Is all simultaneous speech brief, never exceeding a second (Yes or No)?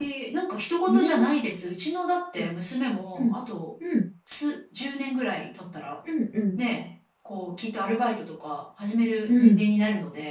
Yes